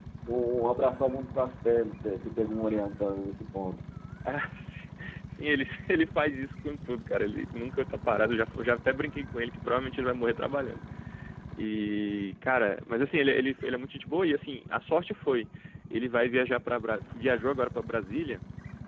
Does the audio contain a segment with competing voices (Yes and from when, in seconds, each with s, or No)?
No